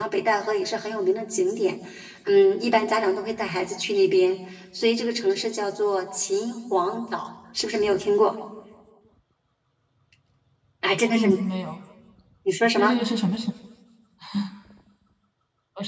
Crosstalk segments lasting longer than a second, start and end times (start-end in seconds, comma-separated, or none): none